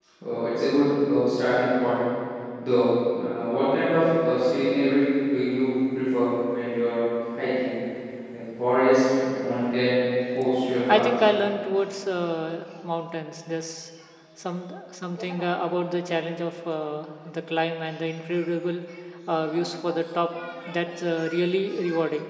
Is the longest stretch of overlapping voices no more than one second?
Yes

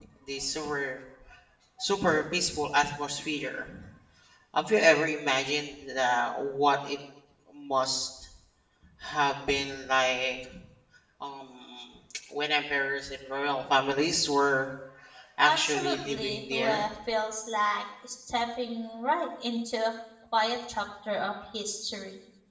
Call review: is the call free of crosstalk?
No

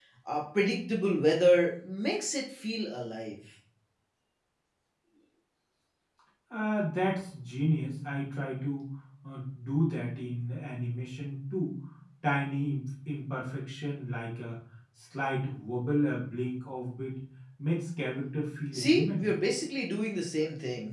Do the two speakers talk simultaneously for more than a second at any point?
No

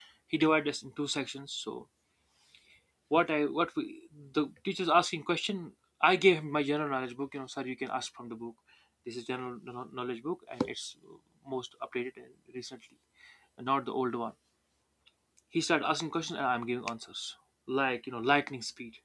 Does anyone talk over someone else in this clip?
No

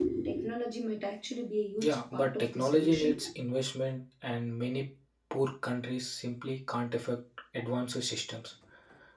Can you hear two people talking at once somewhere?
Yes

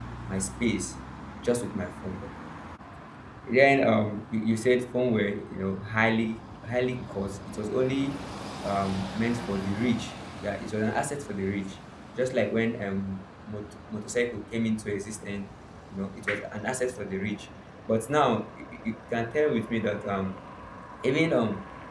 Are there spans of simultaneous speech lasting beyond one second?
No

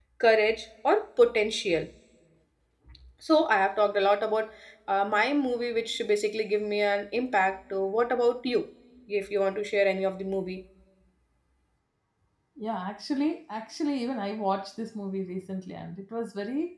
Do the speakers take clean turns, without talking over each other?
Yes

